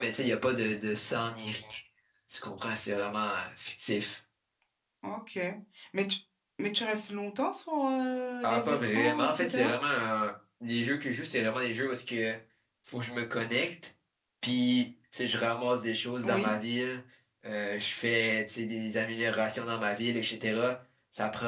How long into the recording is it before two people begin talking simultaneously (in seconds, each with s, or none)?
8.4 s